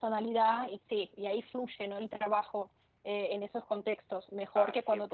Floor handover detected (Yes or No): No